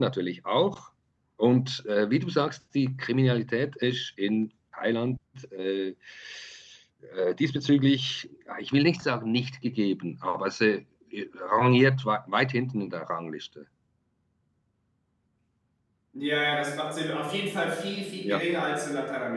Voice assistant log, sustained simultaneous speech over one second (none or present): none